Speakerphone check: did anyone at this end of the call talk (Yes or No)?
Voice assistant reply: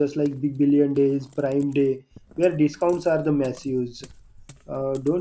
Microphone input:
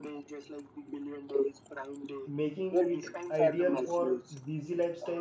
Yes